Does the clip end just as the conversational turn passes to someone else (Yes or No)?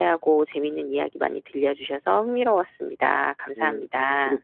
Yes